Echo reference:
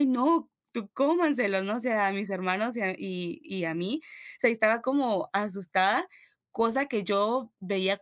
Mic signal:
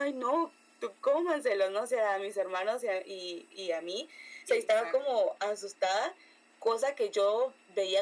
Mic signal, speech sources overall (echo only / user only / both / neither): both